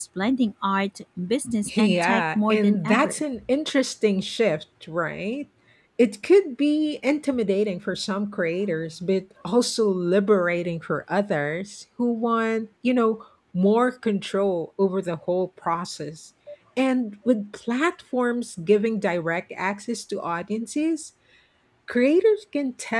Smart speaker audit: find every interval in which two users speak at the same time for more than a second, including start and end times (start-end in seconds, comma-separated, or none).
1.7-3.2